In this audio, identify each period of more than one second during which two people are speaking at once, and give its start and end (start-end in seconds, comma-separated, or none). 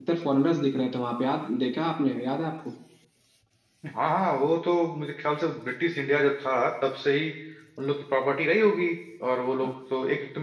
none